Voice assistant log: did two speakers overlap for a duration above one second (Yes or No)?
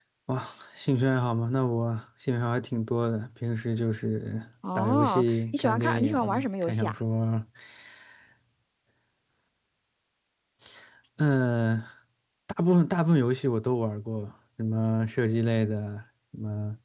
Yes